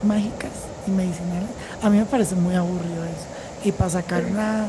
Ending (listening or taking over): listening